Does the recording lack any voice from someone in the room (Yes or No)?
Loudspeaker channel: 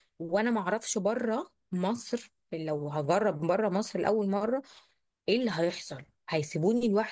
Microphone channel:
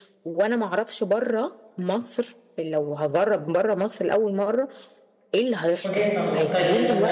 No